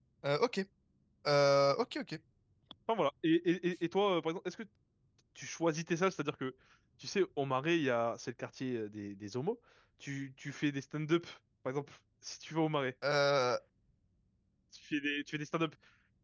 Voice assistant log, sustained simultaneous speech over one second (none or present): none